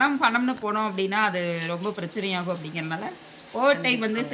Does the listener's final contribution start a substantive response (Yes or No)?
No